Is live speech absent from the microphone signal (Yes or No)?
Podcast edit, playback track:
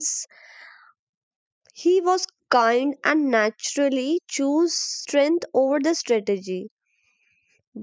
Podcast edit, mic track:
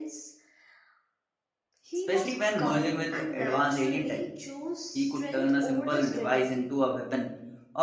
No